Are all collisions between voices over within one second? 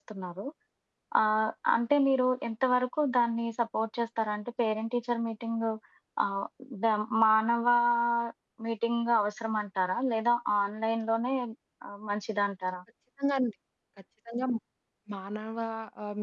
Yes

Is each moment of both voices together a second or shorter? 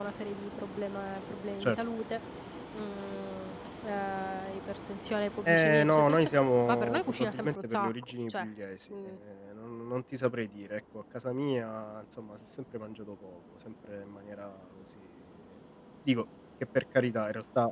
No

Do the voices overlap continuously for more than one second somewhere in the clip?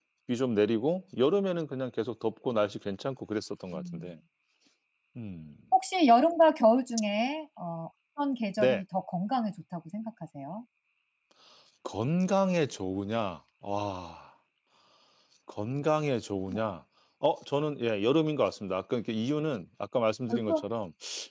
No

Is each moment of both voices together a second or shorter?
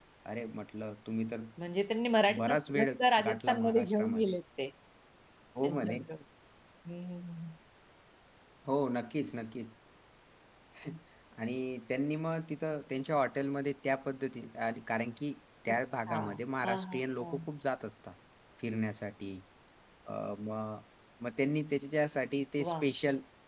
No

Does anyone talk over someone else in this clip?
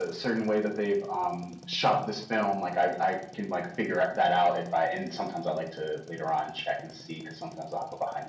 No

